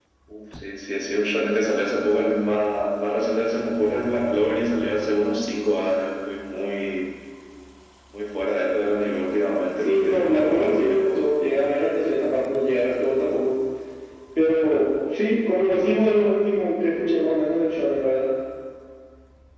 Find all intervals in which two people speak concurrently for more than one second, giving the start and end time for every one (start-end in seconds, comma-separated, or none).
9.8-11.1